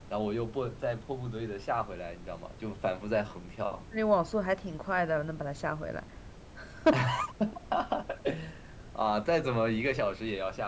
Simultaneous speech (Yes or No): No